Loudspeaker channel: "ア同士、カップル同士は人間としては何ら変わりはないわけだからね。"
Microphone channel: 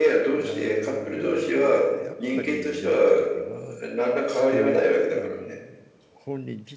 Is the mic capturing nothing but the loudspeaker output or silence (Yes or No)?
No